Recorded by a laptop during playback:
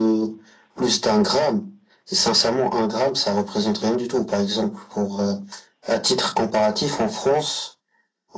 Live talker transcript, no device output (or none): none